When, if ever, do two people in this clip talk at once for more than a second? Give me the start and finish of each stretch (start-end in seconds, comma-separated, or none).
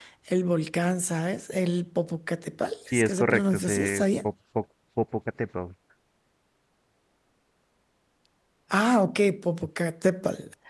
2.9-4.3